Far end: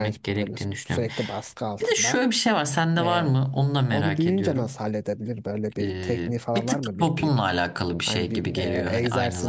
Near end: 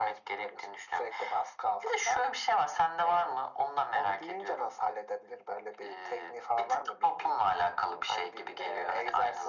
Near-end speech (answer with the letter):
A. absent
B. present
A